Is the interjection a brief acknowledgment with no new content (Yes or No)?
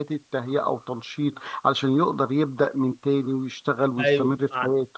No